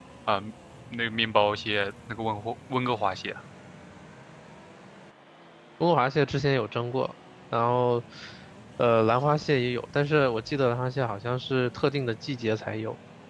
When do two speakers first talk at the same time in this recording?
none

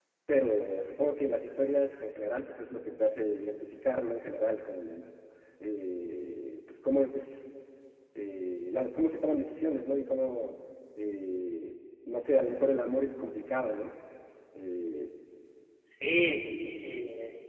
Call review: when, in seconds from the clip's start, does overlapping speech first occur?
none

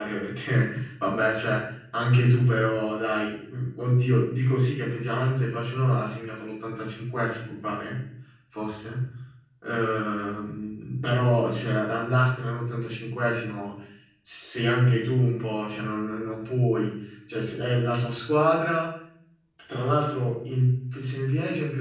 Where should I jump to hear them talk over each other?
none

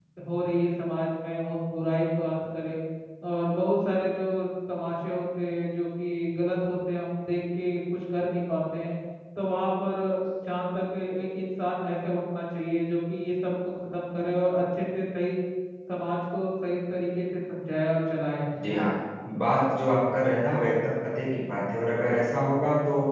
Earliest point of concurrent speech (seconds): none

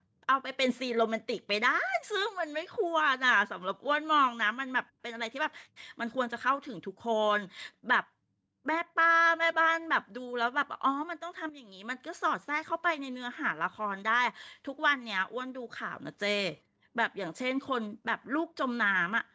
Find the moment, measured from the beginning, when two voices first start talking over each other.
none

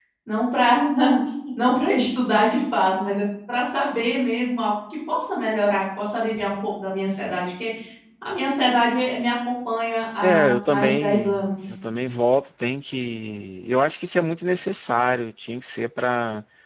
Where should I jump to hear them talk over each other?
10.2 s

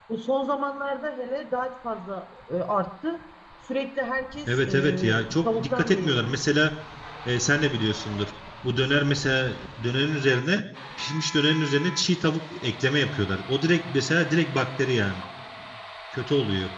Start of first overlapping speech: 4.5 s

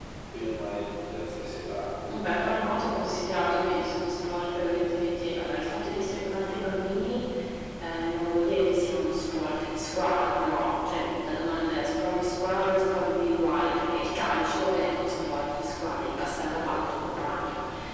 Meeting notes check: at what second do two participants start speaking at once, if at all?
none

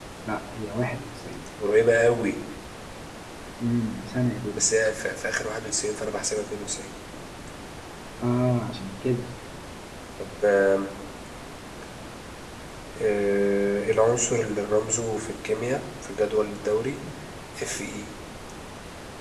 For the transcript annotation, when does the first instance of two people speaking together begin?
none

